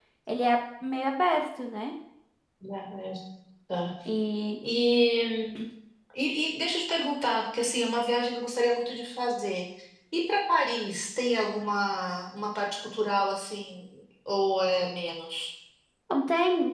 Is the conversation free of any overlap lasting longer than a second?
Yes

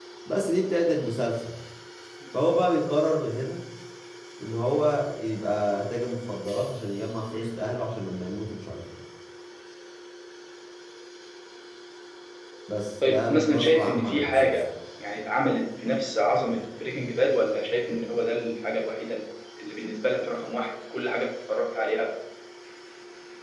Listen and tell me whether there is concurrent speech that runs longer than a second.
Yes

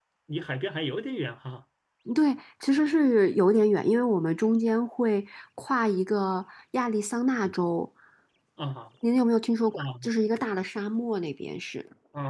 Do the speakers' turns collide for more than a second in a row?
No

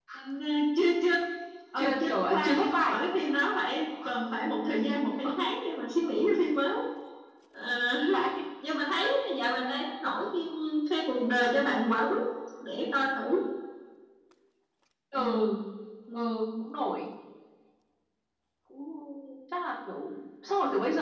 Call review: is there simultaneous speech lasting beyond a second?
Yes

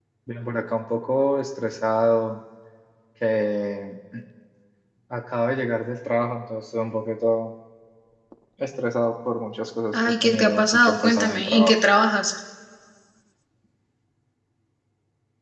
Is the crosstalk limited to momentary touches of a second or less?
No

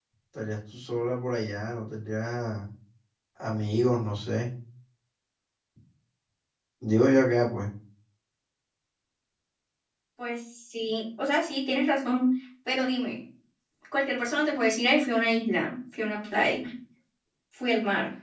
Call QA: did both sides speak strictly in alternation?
Yes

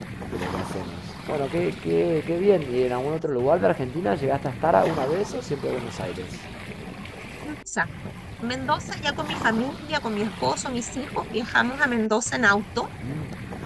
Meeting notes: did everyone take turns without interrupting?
Yes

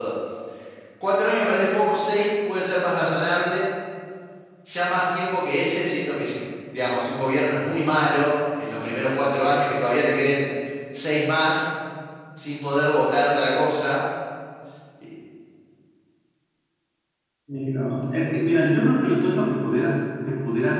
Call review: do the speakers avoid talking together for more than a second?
Yes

